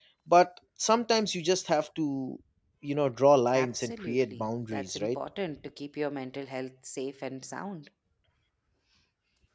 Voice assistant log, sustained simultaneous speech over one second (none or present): present